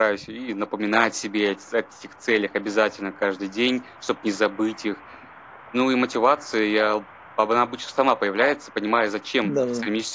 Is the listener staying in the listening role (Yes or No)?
Yes